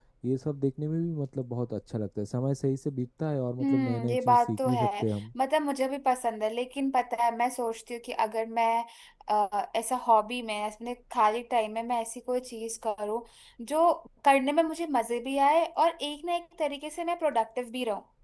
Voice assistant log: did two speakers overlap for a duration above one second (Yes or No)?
Yes